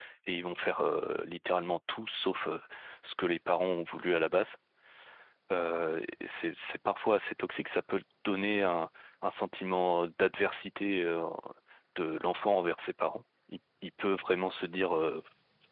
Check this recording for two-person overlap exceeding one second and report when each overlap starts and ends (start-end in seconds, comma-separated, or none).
none